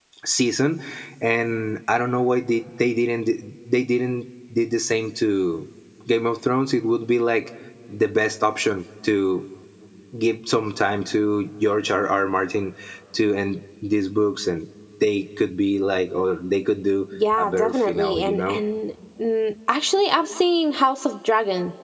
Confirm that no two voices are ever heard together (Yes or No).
No